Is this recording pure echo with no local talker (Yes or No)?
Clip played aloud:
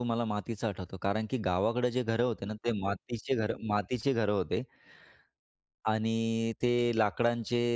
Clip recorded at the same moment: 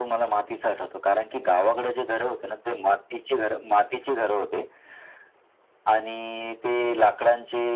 Yes